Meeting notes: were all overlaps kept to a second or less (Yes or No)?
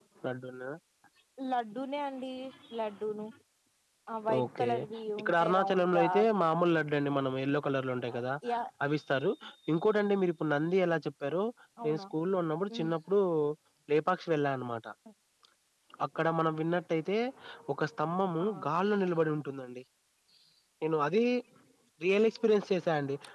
No